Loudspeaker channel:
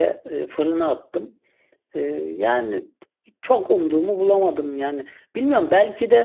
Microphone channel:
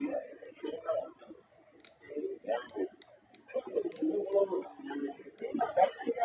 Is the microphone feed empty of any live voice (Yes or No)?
Yes